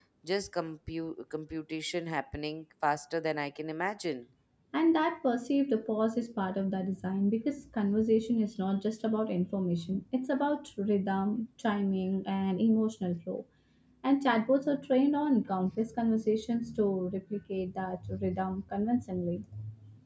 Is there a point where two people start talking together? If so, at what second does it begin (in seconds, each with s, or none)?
none